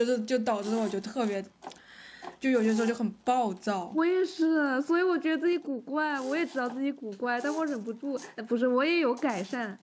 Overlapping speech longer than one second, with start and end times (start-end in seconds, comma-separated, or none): none